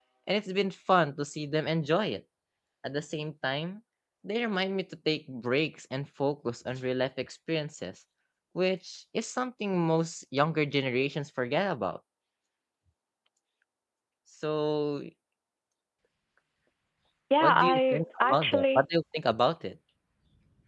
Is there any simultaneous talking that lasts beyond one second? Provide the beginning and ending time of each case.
17.4-18.8

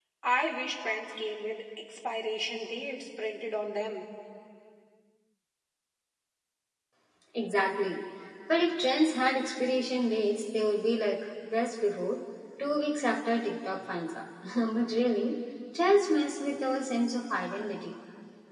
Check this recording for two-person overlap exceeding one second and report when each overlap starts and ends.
none

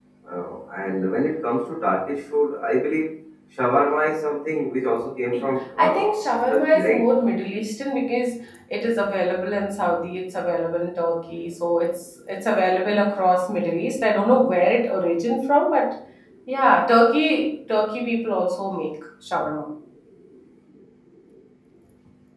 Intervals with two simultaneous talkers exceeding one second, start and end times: 5.8-7.0

